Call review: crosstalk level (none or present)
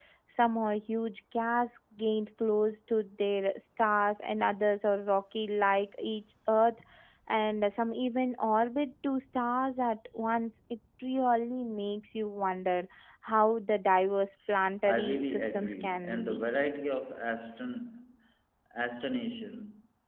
present